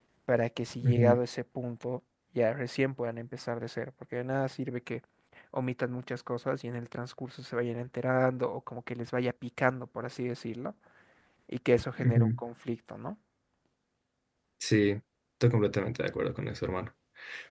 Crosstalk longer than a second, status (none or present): none